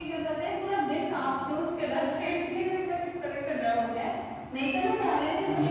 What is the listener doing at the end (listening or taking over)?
listening